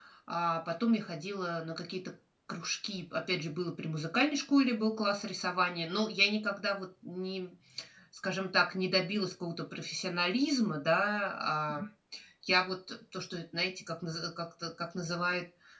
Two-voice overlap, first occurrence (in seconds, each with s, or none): none